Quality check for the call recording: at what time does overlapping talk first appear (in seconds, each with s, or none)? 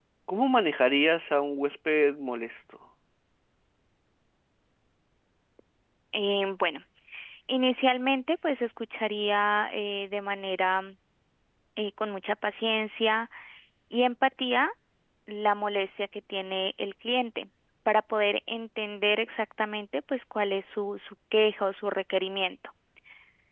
none